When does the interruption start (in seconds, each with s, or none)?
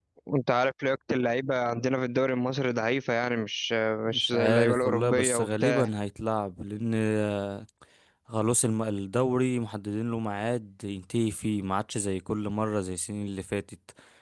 4.1 s